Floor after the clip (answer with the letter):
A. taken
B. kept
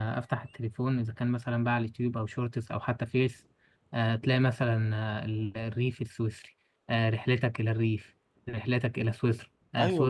B